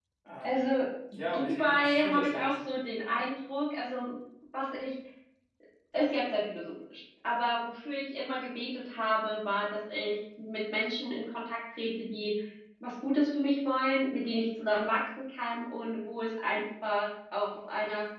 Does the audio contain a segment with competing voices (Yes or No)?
Yes